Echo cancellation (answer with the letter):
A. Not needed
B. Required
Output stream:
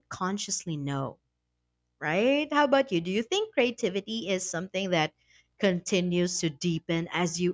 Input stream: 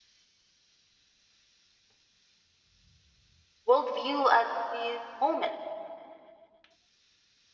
A